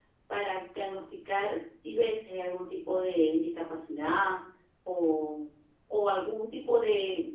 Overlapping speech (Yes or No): No